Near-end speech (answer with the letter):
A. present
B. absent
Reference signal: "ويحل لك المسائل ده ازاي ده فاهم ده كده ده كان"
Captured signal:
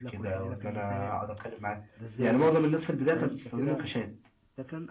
A